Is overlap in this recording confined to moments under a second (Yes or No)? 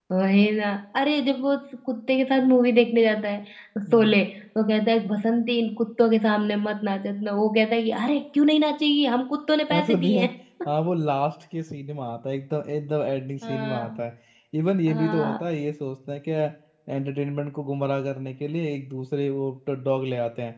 Yes